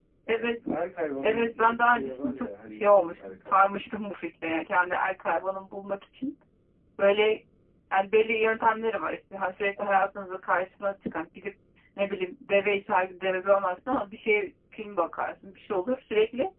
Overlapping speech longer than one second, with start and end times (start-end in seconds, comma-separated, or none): 1.2-3.5